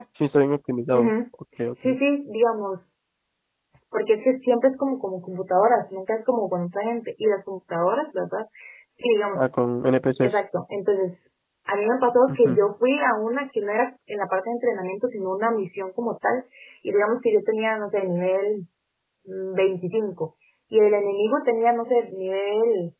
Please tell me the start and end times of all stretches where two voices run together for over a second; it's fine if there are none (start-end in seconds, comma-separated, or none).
none